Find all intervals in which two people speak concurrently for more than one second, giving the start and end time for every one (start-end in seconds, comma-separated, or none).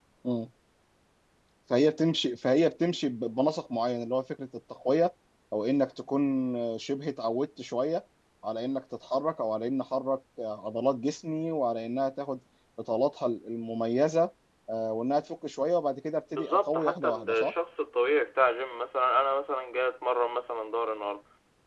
16.3-17.5